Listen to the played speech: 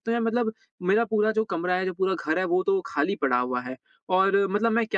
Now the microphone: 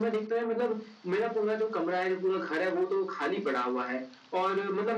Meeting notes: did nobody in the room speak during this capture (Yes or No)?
Yes